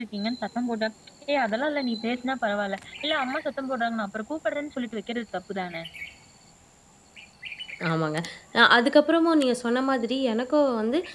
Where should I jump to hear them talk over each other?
none

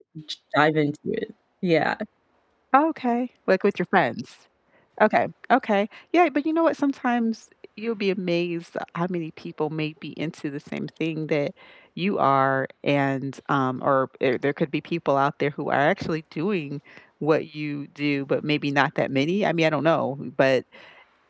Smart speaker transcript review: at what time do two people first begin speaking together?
none

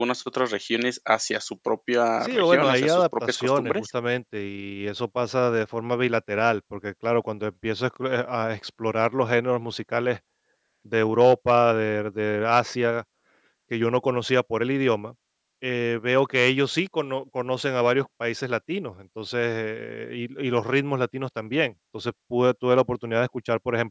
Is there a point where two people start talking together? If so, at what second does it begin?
2 s

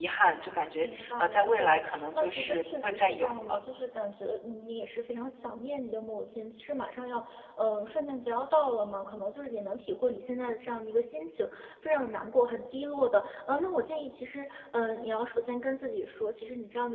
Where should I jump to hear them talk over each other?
1 s

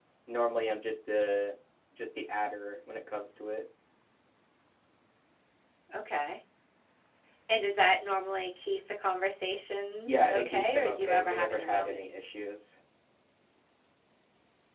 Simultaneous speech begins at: 10 s

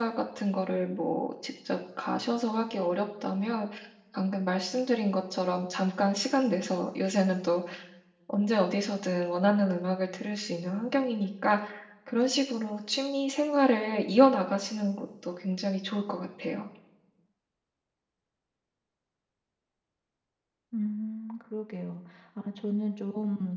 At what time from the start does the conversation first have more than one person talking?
none

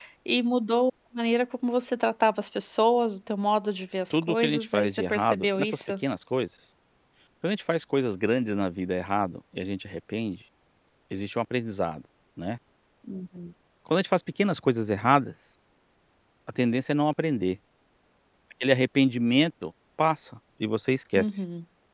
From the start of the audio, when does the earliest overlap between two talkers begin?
4 s

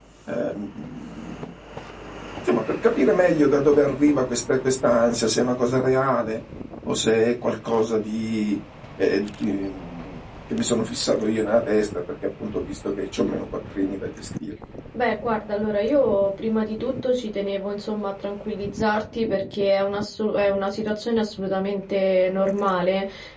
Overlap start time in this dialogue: none

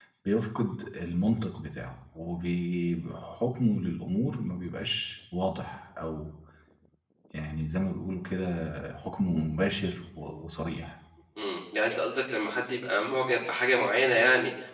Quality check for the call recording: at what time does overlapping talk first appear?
none

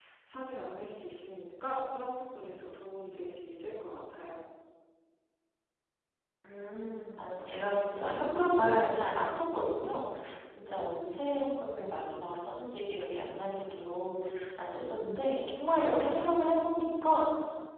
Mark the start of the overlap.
none

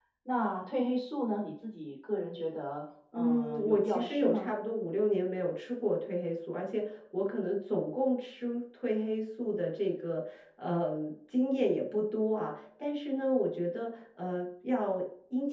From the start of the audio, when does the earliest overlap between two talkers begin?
3 s

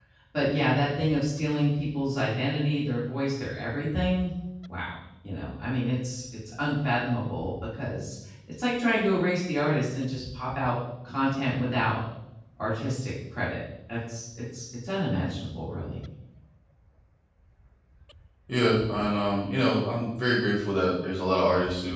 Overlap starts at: none

